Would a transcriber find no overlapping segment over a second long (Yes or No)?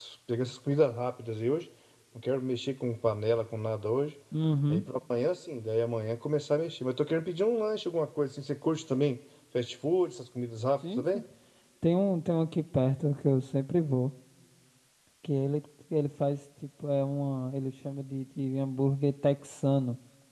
Yes